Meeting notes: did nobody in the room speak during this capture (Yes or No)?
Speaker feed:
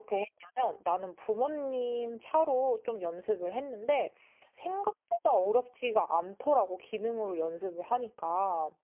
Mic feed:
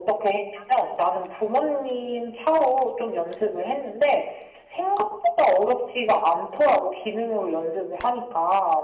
Yes